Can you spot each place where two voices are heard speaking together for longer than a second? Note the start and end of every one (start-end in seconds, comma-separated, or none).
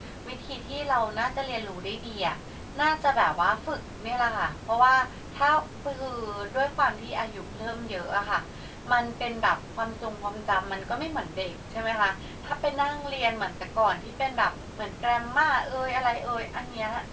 none